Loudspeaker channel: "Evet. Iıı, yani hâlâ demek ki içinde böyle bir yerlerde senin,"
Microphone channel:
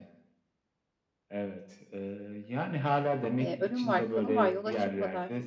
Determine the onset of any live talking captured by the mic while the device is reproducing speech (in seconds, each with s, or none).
3.4 s